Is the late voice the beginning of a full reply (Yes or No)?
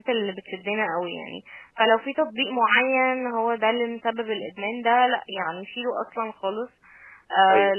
No